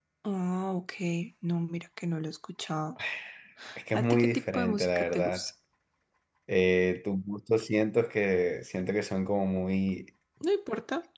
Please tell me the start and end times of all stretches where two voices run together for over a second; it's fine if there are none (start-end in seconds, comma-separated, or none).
3.9-5.4